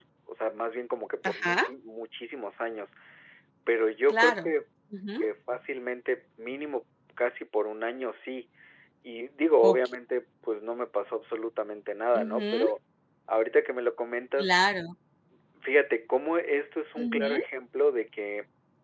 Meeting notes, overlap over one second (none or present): none